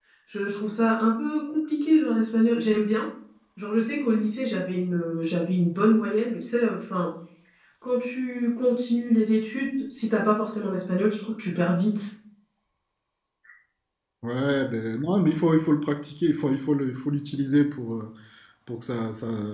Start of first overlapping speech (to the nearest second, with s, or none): none